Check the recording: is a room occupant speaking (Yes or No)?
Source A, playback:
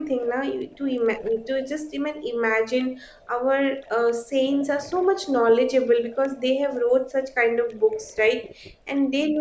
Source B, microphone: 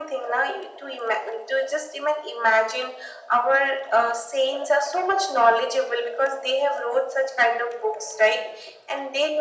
No